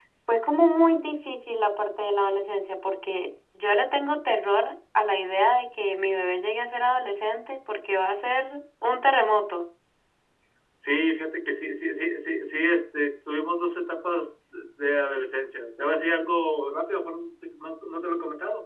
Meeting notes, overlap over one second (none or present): none